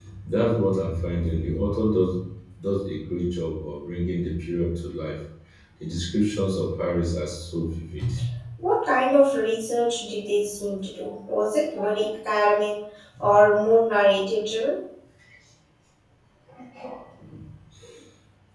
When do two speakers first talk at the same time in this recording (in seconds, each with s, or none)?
none